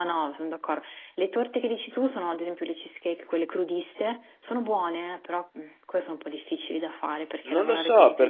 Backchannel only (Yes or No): No